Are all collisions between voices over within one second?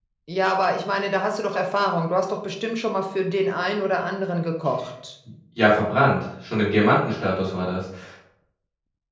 Yes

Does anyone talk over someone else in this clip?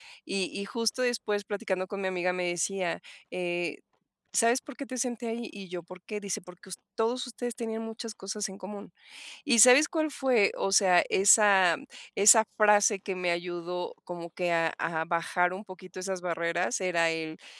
No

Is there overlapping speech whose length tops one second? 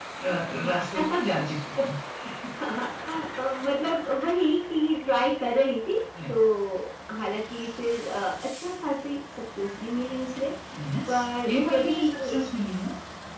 Yes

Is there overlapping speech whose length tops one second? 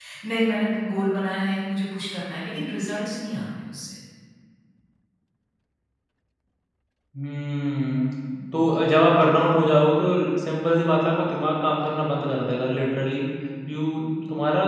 No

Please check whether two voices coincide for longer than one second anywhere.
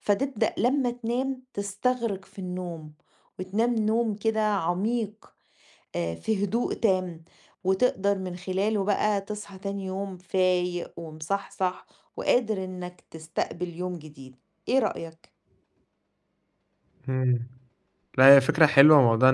No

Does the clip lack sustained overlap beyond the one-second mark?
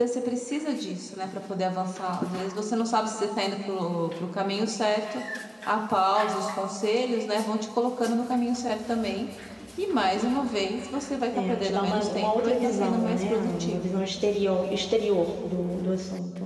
No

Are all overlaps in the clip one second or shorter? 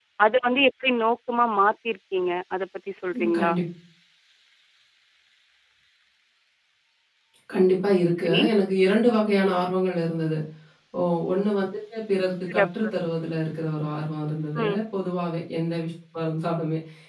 Yes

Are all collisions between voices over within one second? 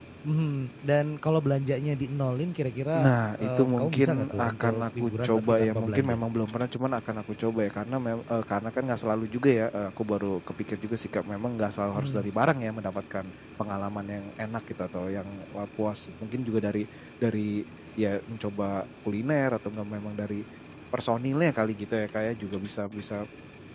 No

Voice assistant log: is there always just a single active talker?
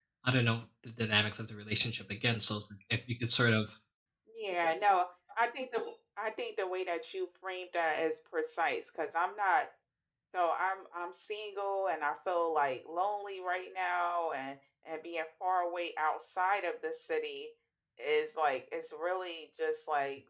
Yes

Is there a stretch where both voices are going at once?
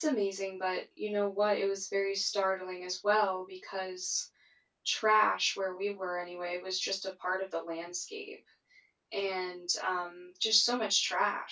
No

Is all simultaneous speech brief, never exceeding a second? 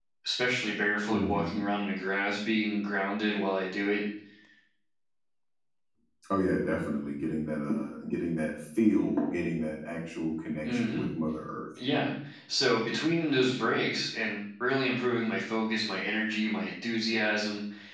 Yes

